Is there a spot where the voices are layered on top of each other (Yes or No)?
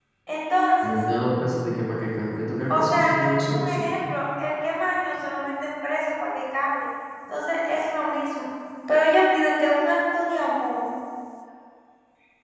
Yes